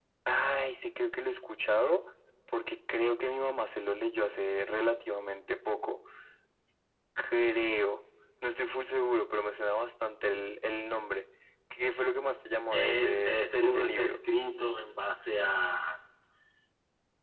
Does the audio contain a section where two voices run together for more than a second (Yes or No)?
Yes